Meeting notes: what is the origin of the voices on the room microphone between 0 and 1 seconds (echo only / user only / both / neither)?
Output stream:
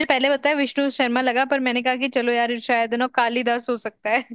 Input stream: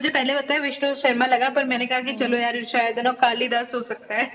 echo only